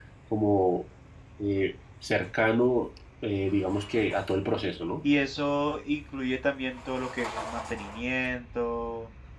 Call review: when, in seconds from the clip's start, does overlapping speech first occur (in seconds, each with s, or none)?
none